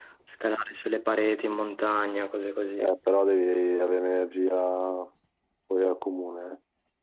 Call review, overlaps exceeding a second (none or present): none